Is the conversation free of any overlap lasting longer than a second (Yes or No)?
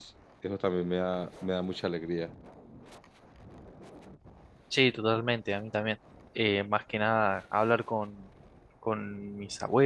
Yes